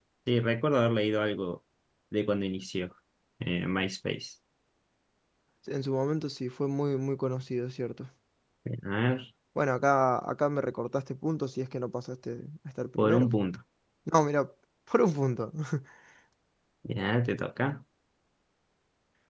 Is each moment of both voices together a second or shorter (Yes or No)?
Yes